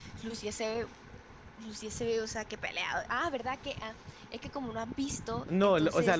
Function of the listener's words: taking over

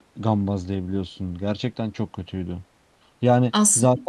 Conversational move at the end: listening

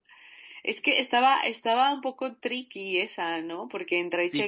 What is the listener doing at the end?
taking over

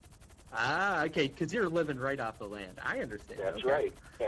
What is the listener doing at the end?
taking over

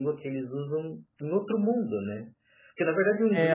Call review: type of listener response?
listening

